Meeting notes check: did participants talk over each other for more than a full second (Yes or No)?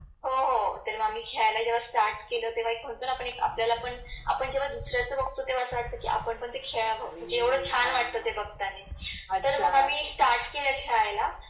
Yes